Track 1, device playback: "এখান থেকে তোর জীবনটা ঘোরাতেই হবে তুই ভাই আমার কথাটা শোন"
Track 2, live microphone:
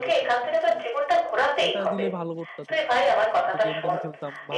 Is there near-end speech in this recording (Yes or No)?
Yes